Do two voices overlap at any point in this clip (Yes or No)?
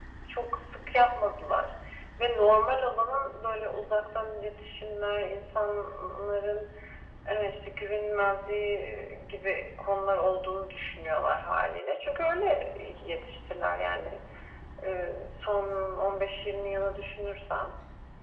No